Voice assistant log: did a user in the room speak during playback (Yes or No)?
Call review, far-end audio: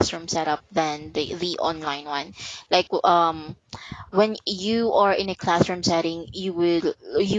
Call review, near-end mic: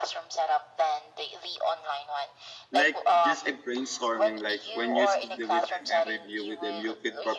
Yes